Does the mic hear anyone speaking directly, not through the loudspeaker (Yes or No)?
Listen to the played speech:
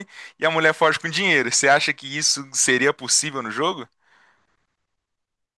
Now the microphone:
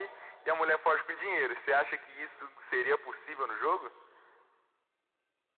No